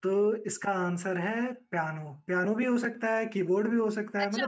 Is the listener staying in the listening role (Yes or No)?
No